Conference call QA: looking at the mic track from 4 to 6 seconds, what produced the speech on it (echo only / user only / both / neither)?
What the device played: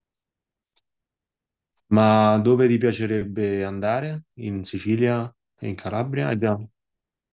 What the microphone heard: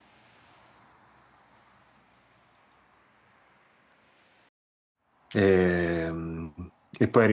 user only